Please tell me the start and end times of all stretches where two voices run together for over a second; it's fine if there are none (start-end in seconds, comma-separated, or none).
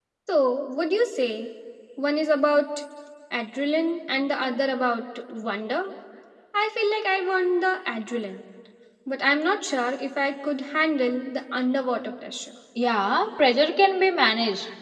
none